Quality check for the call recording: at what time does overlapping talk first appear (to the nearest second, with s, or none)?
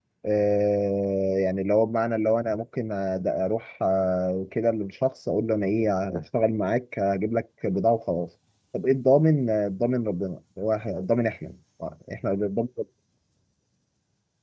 none